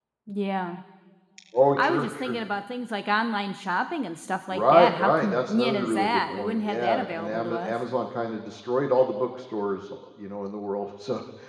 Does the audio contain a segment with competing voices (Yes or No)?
Yes